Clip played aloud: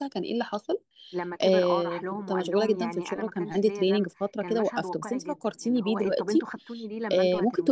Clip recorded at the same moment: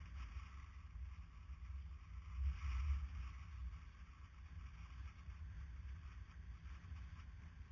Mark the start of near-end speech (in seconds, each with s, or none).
none